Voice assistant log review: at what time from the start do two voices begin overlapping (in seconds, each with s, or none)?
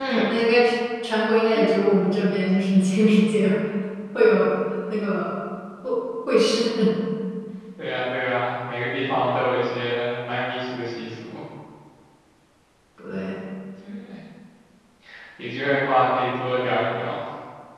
none